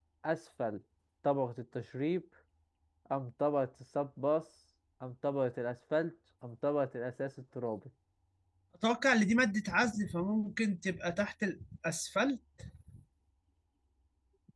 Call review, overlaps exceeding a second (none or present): none